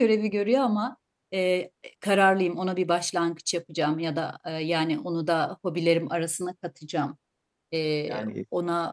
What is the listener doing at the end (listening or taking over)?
listening